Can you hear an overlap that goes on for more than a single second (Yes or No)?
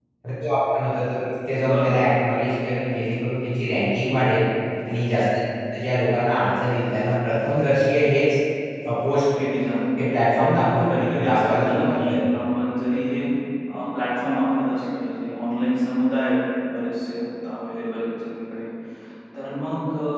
Yes